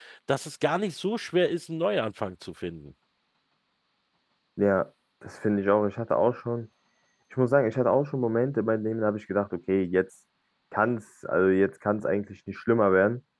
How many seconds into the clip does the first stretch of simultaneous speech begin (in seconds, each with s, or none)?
none